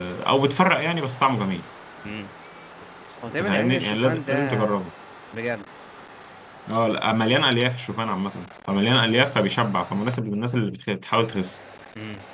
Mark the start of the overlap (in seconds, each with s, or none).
3.4 s